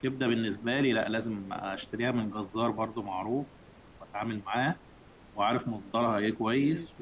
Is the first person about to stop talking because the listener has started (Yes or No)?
No